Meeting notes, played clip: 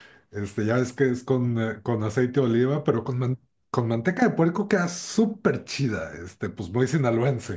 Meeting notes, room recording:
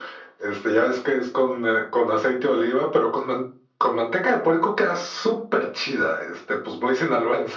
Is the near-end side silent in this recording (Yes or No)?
Yes